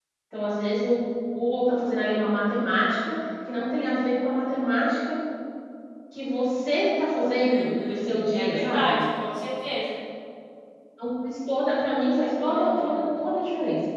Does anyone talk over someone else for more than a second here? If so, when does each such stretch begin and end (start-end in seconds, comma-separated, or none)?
7.4-9.0